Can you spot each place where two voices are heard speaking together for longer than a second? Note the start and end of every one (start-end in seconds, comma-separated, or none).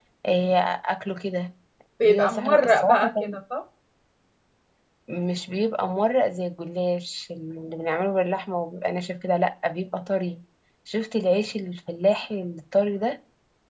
2.0-3.4